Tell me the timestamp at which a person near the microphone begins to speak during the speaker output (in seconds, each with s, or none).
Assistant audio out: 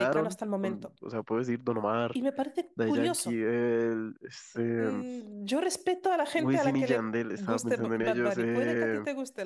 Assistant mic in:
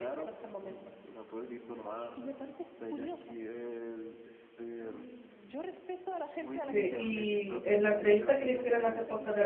6.7 s